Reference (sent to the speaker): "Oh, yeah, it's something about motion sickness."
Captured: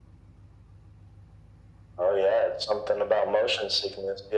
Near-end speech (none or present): none